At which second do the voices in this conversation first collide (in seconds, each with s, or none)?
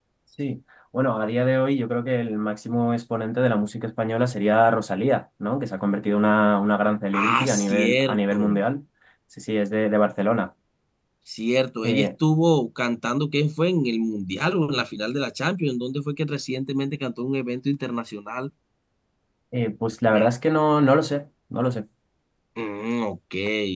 7.1 s